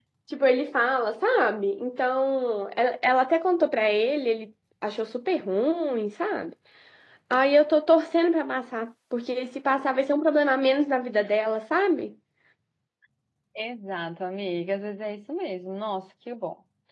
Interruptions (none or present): none